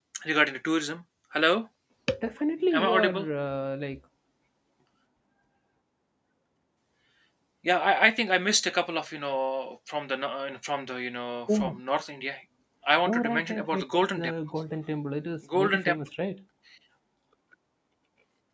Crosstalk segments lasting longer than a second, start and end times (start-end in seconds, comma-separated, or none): 13.1-14.3